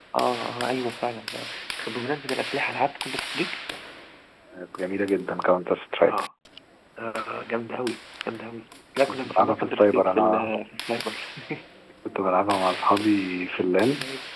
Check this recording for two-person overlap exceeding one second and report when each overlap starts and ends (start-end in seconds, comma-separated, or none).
9.1-10.5